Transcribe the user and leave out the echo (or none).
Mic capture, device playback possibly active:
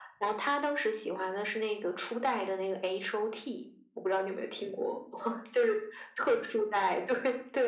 none